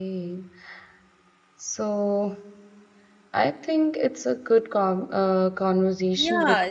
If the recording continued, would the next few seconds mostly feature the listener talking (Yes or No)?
Yes